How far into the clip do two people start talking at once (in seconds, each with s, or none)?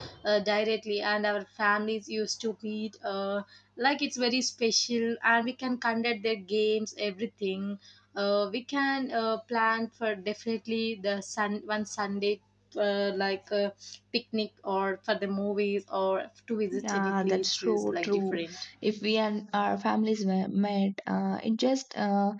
16.7 s